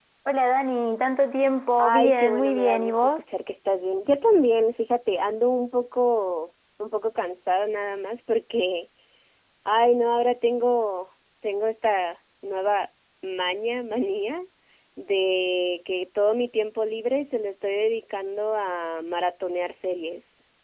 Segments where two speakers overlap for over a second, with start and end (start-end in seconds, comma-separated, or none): 1.8-3.2